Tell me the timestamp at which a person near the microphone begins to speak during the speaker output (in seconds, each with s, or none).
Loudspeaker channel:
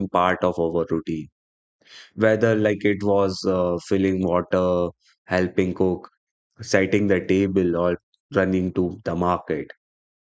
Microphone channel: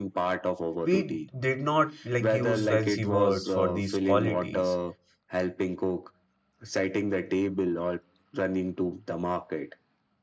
0.8 s